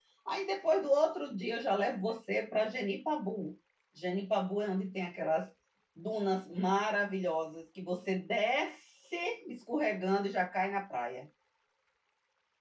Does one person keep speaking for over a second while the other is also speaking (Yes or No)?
No